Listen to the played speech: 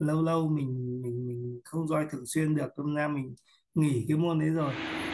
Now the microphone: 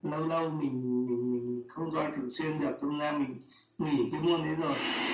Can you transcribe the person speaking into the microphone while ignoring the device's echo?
none

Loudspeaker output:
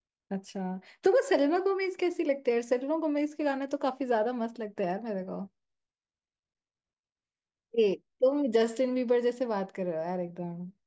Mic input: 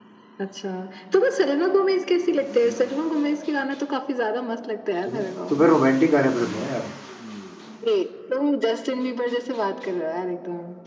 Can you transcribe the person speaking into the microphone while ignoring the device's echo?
हूँ तुम्हें तुम्हें रोमांटिक गाने पसंद है ना यार

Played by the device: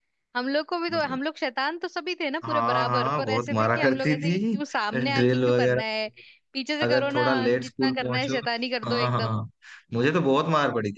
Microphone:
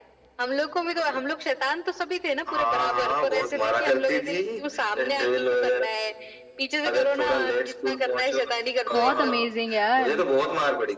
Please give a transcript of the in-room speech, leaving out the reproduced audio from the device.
बहुत अमेजिंग यार

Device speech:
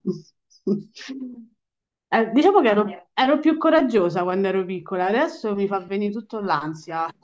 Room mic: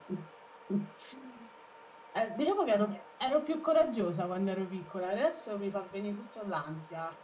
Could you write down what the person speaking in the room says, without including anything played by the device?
none

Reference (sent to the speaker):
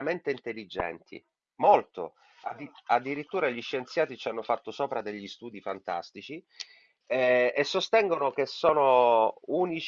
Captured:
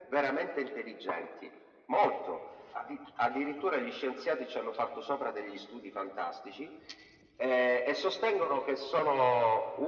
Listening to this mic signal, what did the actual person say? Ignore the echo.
none

